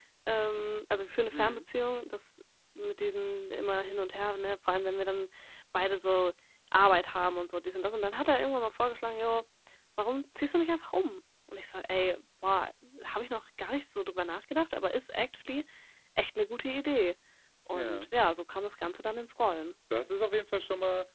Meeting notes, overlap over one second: none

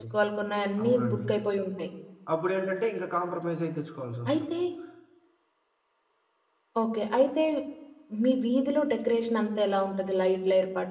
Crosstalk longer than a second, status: none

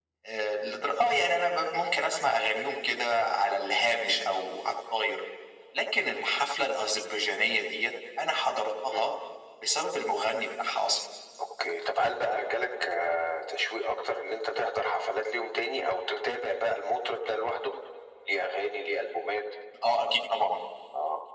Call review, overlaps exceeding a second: none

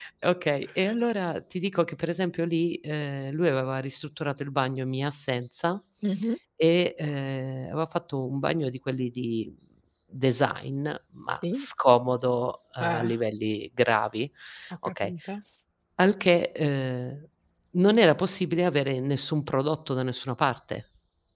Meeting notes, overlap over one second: none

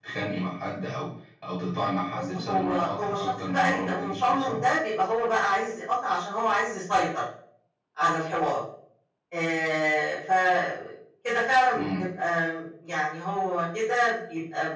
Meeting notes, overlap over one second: present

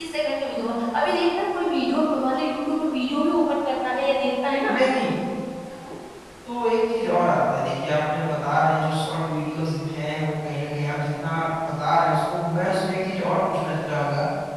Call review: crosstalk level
none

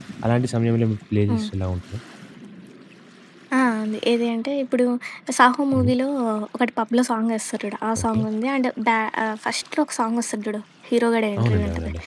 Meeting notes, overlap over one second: none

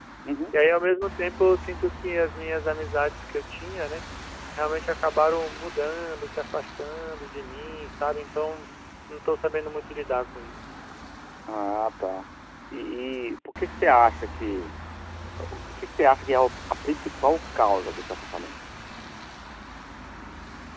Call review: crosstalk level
none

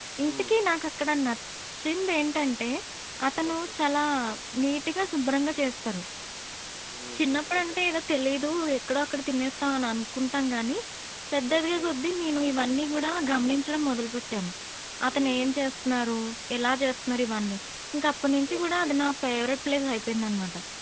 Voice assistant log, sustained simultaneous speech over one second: none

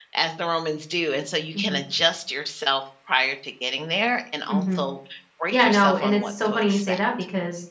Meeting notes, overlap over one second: present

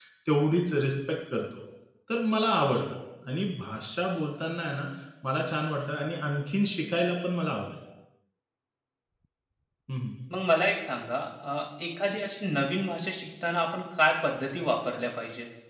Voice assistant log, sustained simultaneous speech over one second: none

